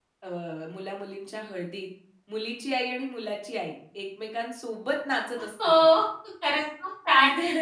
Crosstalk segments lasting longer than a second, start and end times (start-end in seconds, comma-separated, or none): none